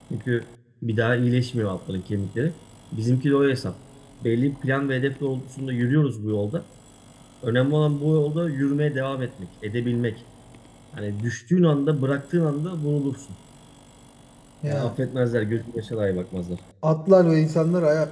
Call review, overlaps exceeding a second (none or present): none